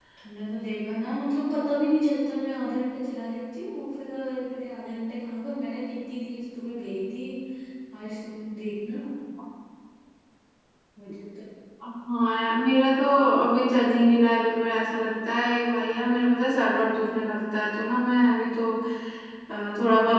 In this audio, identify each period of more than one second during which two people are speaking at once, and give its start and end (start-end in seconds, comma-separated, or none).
none